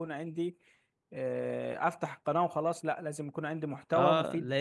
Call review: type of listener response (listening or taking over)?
taking over